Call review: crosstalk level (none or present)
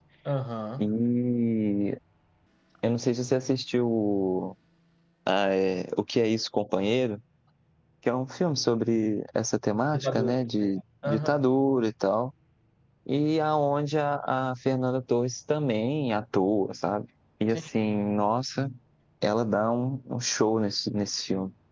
present